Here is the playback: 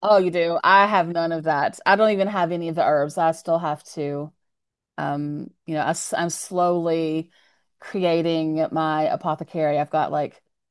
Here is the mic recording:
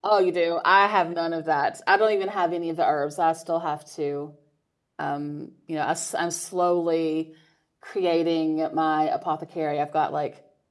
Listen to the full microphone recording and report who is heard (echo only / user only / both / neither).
echo only